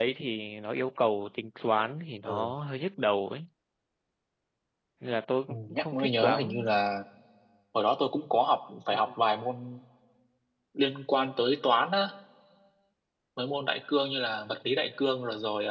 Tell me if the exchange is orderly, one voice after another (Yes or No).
No